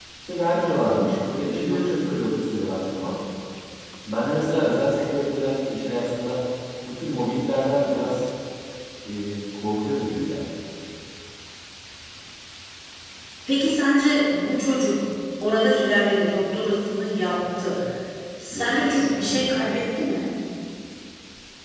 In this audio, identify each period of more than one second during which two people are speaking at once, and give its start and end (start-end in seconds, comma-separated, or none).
18.5-19.8